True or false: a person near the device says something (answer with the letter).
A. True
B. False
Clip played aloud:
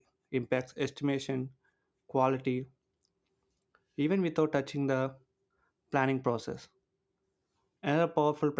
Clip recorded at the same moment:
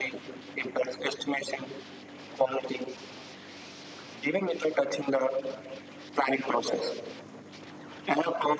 B